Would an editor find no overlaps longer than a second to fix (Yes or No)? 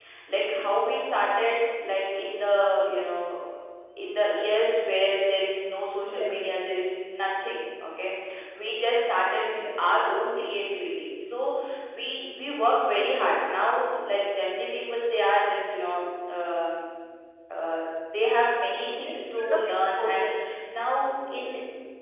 No